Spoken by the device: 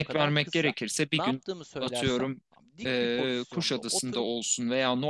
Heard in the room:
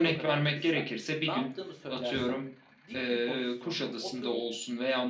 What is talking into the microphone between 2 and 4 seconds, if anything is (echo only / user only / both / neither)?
echo only